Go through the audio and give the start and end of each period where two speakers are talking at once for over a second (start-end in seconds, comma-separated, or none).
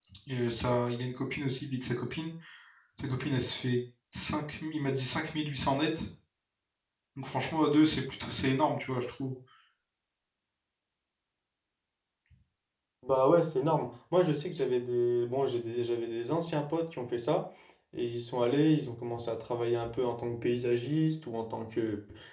none